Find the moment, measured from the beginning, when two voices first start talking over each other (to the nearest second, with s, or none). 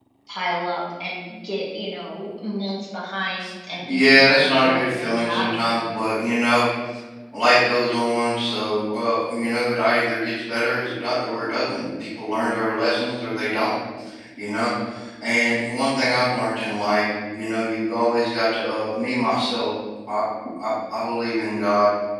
4 s